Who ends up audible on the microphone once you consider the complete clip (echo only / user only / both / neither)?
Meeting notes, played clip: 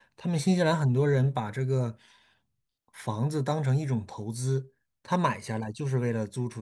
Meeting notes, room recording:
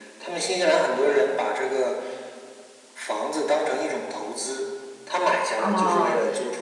both